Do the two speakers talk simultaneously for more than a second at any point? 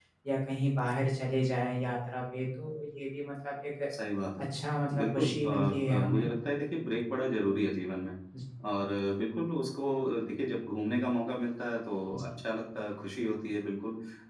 Yes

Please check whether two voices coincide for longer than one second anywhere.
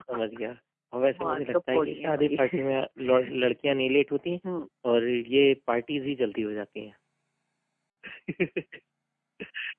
Yes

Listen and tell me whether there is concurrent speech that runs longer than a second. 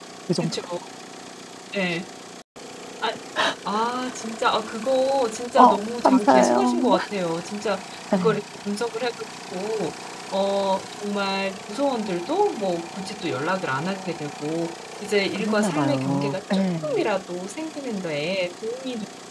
Yes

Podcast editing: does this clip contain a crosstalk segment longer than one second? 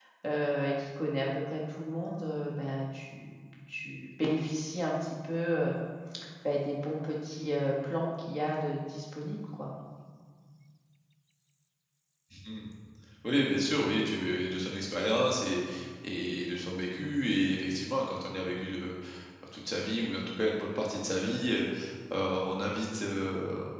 No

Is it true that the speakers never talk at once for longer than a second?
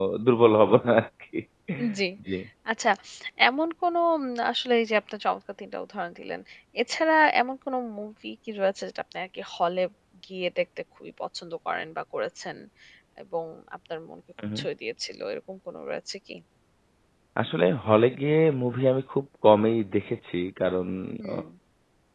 Yes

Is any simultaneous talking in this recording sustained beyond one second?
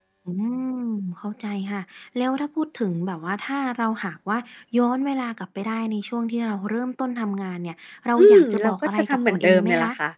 Yes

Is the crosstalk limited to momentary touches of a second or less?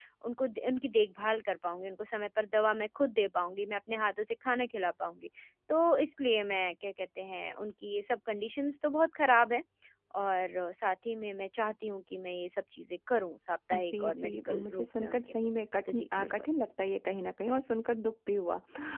No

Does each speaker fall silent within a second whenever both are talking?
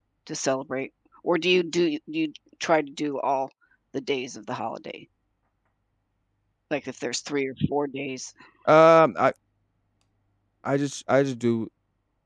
Yes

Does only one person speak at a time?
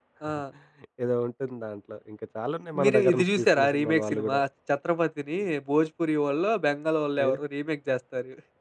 No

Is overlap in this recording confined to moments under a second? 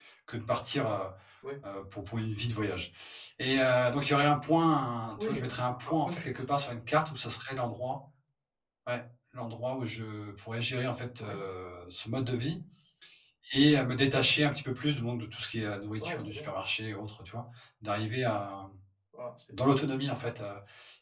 No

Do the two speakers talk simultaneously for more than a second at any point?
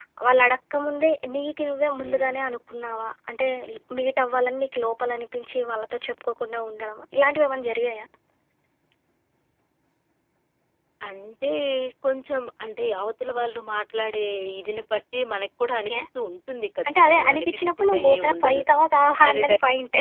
Yes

